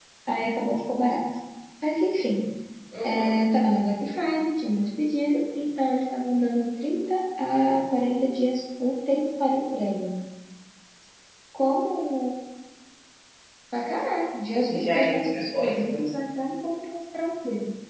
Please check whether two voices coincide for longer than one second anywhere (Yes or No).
Yes